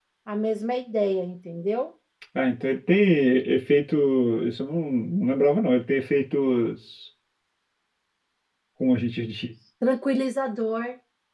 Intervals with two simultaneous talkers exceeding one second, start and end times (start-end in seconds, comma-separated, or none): none